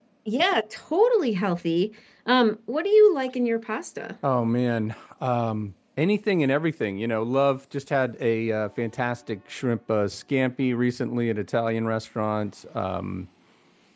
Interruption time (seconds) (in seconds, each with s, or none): none